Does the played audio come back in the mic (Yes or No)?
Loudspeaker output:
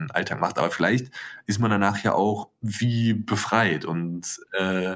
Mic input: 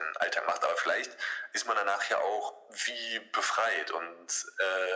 Yes